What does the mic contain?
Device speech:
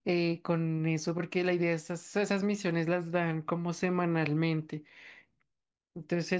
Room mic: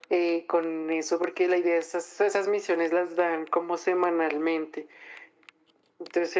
echo only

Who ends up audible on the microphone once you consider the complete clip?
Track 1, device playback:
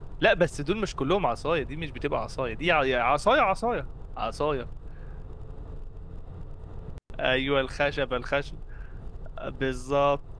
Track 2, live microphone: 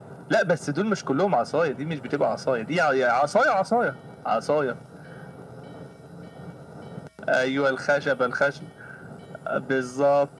echo only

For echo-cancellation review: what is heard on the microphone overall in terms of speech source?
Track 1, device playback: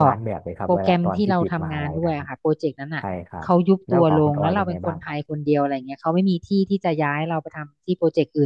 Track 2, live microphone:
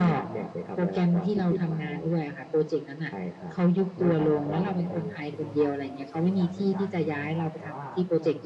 both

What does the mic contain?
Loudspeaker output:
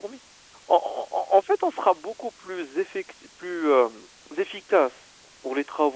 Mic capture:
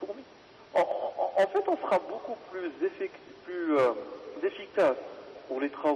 echo only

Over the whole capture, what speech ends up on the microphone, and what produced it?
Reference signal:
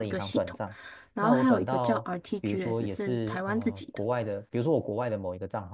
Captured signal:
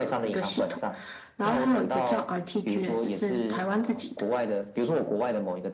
echo only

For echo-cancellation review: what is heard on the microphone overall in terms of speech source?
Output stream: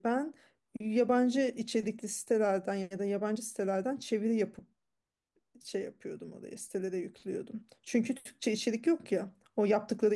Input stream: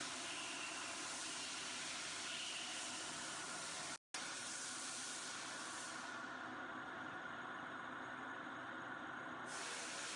neither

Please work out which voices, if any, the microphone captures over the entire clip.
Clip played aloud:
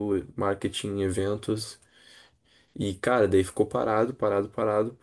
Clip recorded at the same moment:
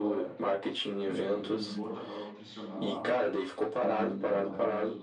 both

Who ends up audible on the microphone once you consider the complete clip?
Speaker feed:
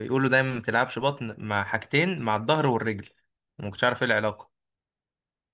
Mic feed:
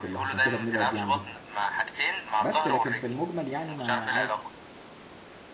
both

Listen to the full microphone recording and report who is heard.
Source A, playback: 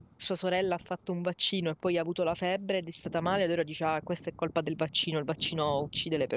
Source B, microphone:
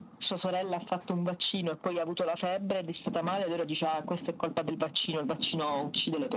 echo only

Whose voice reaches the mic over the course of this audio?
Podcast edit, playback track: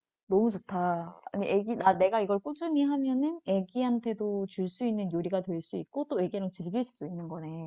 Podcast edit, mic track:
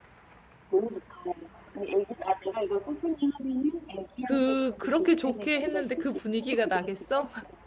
both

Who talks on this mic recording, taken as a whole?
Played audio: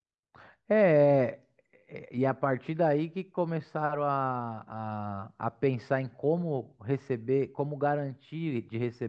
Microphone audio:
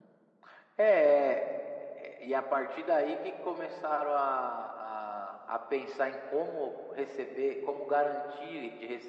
echo only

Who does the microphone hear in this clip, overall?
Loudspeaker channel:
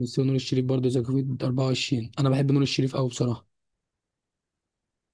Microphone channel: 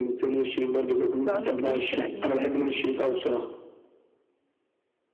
both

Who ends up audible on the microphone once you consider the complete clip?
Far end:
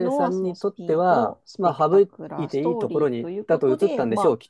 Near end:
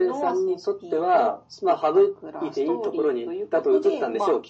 echo only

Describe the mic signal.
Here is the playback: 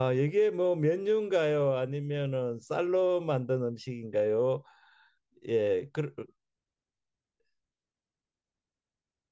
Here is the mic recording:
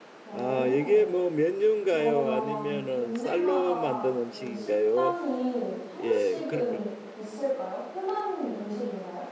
both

